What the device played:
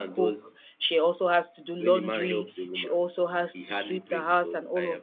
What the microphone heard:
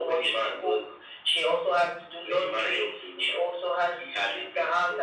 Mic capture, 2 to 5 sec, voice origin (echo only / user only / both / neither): echo only